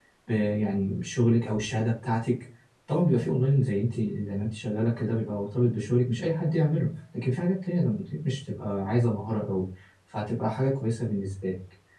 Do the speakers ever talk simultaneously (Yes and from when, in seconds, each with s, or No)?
No